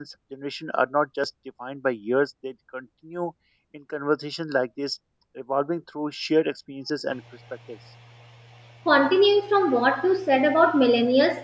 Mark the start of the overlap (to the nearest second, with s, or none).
none